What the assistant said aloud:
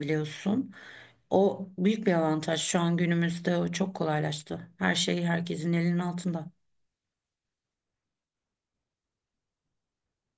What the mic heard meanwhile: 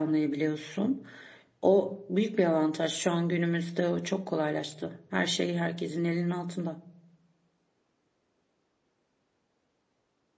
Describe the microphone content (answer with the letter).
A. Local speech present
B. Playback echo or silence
B